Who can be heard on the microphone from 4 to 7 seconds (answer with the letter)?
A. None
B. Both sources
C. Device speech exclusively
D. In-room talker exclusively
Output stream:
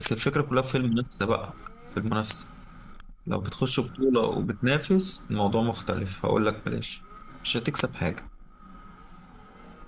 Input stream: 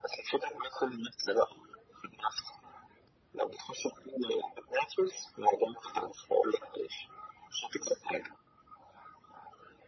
C